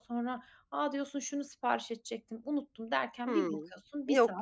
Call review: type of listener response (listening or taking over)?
taking over